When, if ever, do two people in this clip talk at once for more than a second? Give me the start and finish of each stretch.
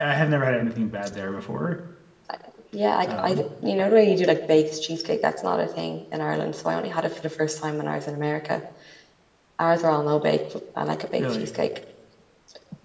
none

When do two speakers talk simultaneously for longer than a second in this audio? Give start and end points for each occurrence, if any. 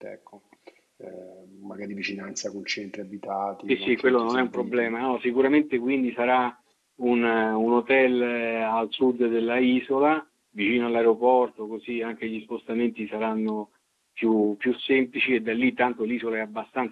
3.7-4.9

